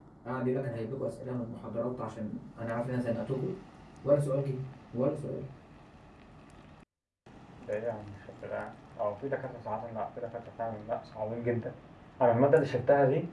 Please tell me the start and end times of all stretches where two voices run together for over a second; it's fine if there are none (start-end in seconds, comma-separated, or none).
none